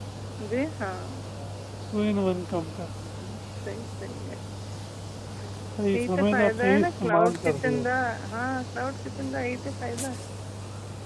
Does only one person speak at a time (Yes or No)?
No